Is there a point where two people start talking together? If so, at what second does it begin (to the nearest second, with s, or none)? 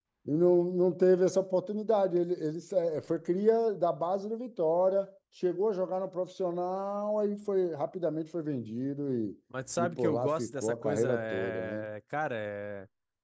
10 s